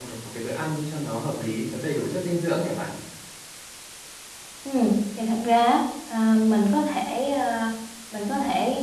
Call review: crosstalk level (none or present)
none